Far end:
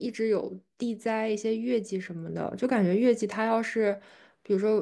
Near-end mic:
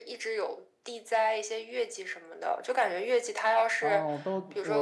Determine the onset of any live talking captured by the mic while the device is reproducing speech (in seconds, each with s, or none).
3.8 s